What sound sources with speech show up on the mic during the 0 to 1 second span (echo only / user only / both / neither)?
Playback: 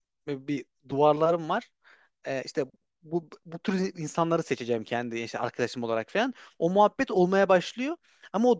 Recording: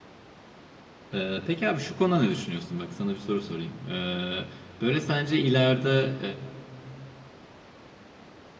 neither